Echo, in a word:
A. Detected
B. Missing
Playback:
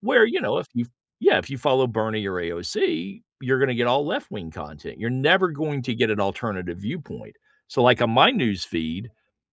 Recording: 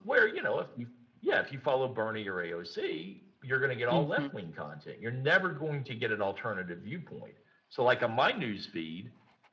A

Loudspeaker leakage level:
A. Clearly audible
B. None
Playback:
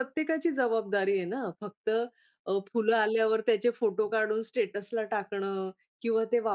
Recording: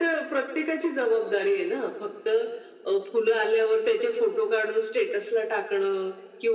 A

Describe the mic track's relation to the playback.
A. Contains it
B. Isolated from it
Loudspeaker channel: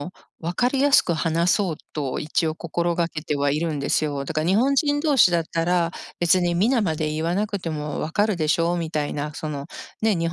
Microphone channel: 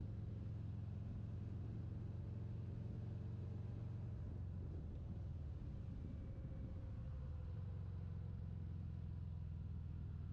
B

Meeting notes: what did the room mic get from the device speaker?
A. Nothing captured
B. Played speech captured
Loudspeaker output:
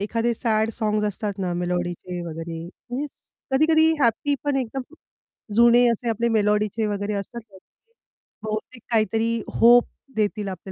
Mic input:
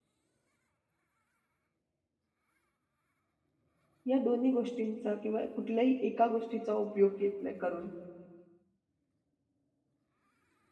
A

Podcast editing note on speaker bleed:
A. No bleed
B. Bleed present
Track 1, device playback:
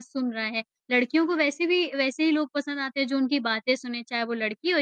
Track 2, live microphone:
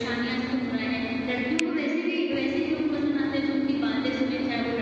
B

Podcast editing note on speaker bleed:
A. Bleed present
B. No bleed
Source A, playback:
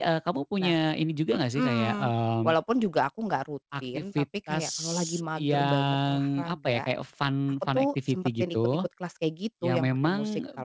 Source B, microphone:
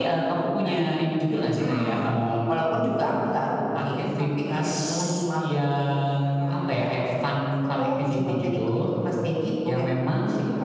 A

